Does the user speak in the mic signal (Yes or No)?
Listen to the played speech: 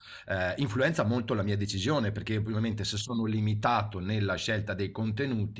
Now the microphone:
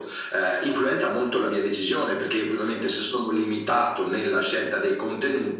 No